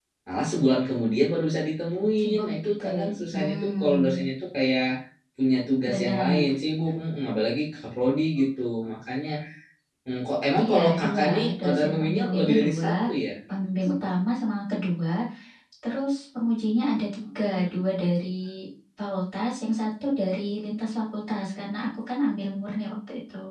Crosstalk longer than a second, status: present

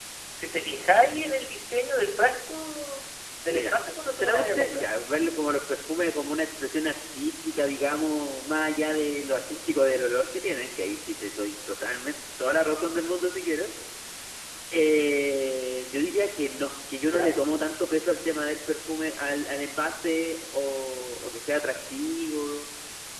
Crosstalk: present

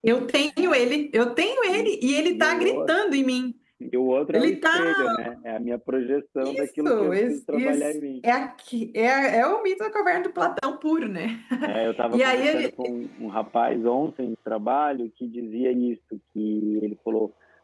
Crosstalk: present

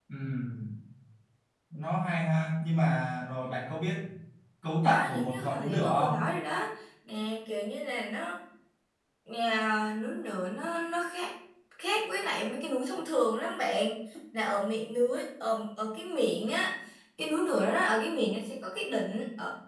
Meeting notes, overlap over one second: present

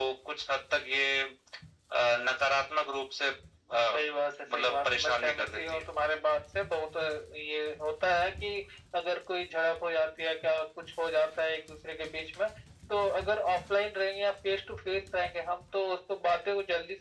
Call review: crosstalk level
present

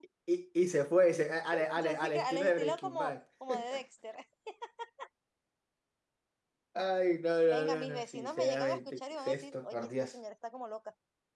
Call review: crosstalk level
present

